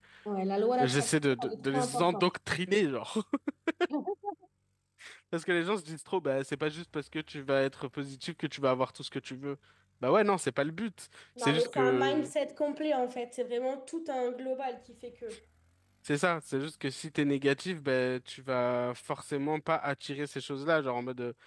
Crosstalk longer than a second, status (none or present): present